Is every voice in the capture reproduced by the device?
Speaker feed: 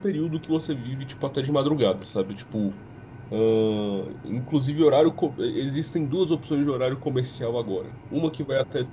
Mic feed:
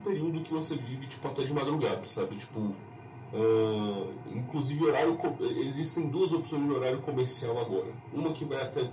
Yes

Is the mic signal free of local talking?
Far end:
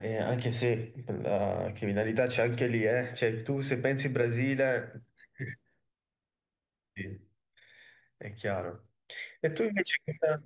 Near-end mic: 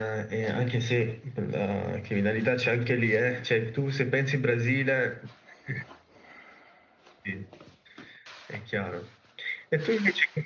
Yes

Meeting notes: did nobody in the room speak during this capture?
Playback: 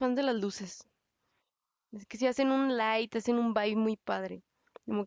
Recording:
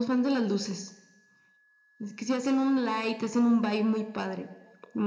Yes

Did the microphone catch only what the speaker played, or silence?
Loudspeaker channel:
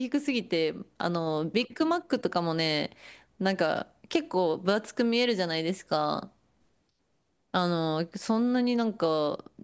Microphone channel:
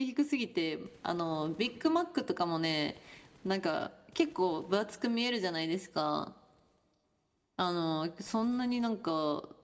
Yes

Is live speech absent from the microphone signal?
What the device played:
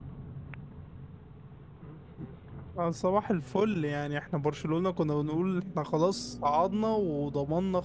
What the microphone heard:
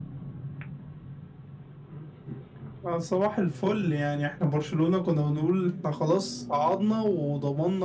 Yes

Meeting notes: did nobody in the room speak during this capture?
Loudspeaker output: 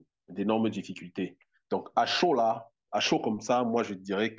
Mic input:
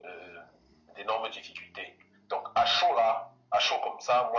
Yes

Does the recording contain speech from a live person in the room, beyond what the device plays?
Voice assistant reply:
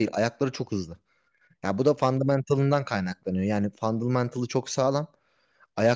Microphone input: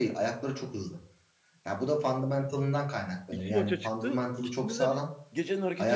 Yes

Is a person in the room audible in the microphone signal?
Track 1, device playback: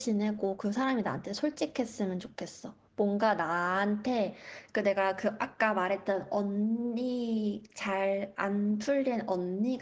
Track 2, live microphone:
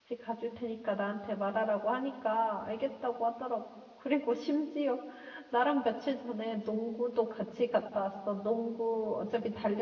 Yes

